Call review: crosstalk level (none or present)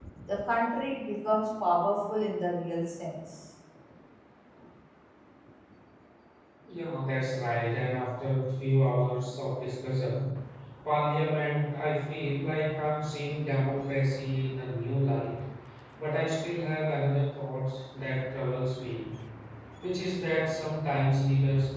none